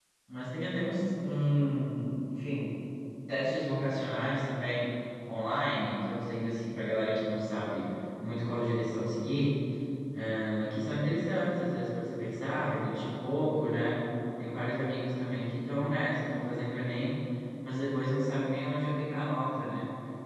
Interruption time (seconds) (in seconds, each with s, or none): none